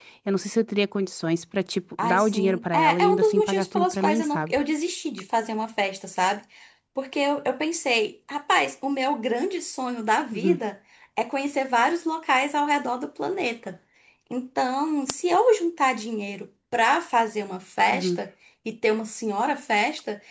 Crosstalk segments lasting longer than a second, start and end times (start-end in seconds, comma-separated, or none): 2.0-4.6